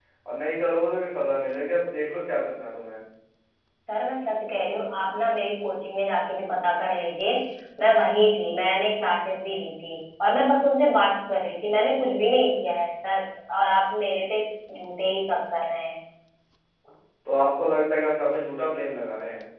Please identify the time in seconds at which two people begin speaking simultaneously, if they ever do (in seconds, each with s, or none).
none